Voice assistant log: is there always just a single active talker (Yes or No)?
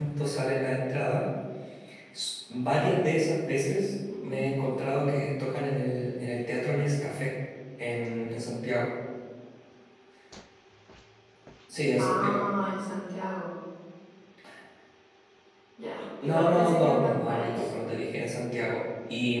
No